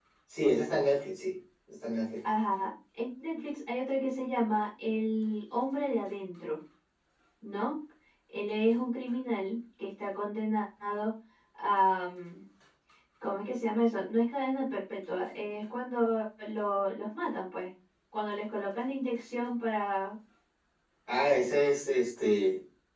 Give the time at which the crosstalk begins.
none

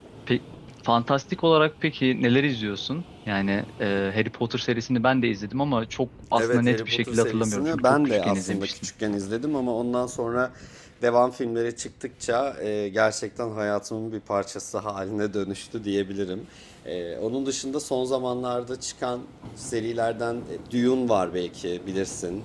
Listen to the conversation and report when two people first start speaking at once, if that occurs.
6 s

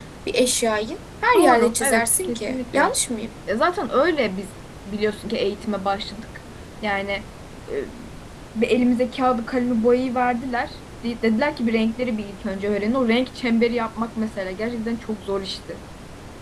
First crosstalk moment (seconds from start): 1 s

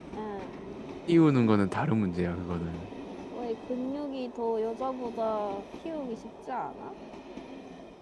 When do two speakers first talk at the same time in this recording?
none

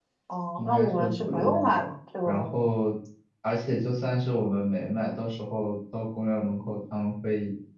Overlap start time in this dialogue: 1 s

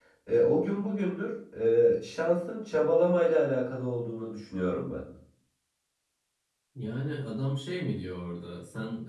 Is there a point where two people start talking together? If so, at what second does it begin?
none

